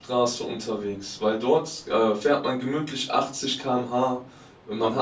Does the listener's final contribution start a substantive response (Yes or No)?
No